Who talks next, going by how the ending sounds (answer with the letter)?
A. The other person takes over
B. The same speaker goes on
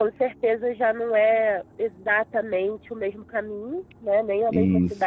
B